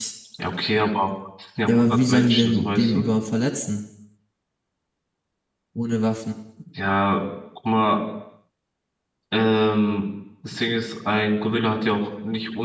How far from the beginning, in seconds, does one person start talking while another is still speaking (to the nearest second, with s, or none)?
2 s